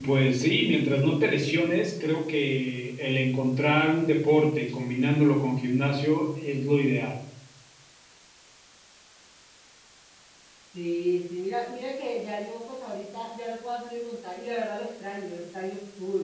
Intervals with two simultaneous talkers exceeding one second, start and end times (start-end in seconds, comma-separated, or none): none